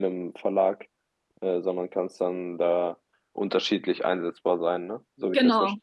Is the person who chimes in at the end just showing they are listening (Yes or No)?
No